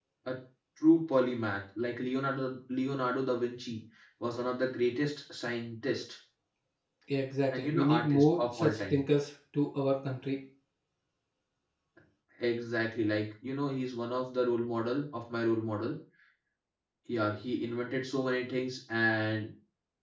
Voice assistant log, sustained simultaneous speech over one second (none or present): present